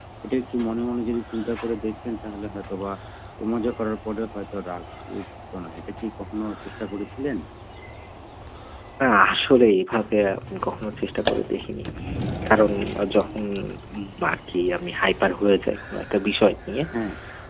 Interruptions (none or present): none